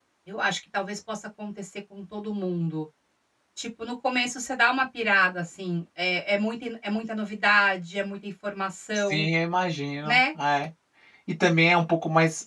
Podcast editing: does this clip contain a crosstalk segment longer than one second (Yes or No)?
No